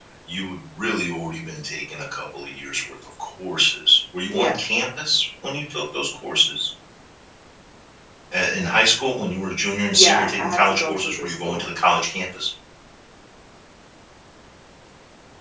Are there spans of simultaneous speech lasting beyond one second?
Yes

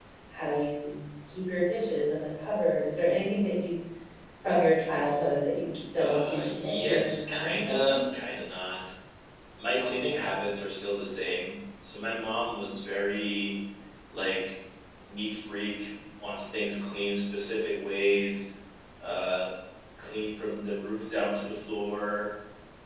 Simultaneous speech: Yes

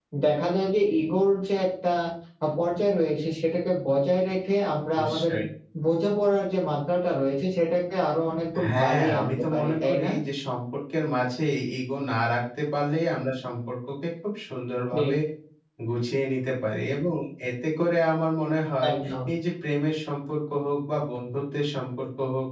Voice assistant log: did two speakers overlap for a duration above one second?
Yes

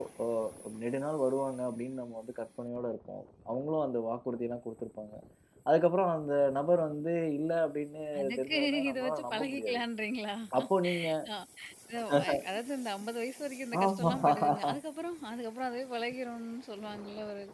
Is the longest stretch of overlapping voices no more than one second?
No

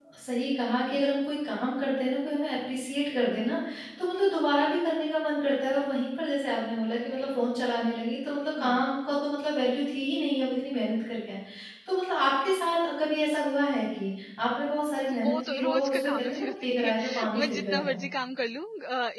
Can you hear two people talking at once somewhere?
Yes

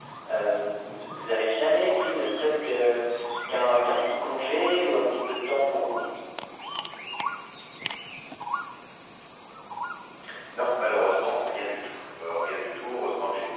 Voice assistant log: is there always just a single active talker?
Yes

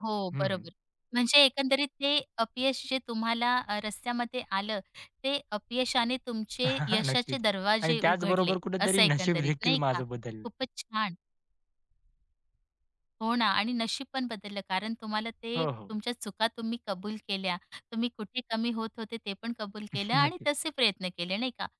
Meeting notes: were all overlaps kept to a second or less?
No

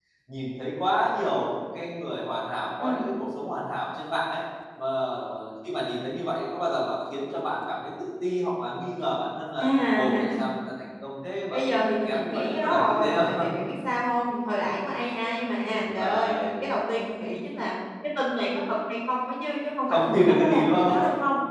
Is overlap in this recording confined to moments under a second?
No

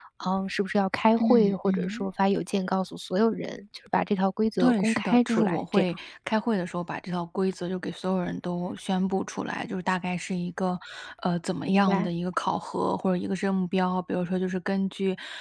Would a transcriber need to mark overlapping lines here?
Yes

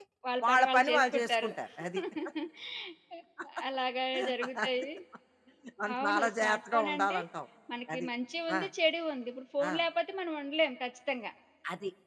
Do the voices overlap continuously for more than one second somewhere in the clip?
Yes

